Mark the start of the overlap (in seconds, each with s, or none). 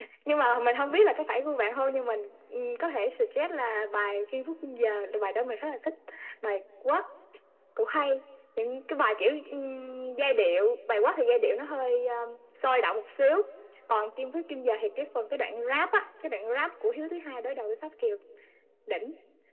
none